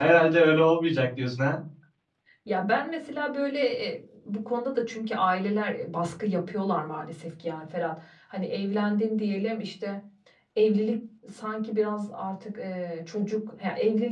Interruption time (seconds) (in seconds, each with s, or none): none